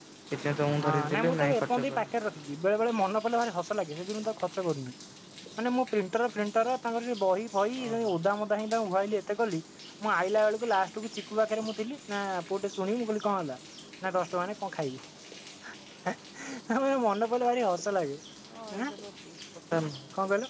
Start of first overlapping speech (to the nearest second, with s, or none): 1 s